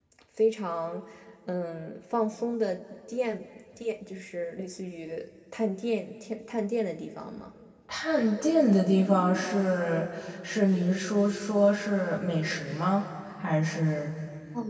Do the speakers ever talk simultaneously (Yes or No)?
No